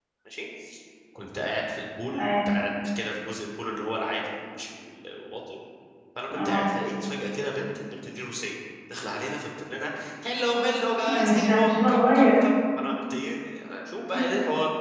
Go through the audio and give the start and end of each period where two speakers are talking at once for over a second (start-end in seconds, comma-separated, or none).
11.1-12.4